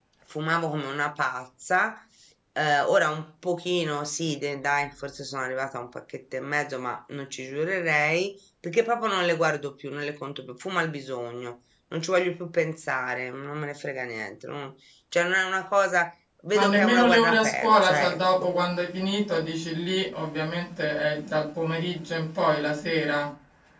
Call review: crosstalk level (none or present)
present